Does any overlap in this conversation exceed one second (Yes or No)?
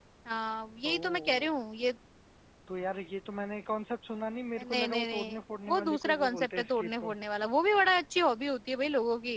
Yes